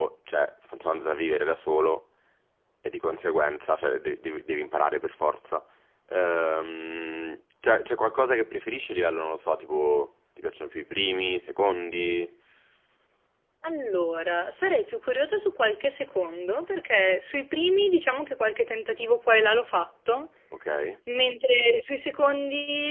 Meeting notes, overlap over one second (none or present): none